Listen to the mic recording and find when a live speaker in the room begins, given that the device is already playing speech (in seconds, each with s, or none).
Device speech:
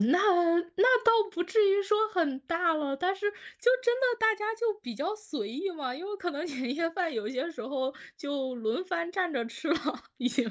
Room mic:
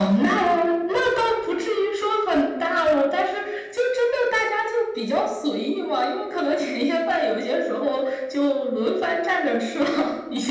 none